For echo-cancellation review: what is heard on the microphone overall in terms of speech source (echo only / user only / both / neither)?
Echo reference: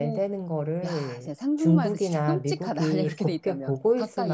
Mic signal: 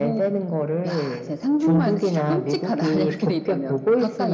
echo only